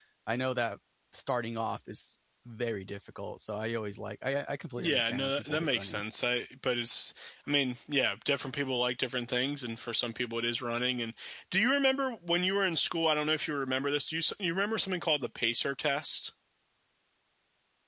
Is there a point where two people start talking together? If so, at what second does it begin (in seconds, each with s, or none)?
4.8 s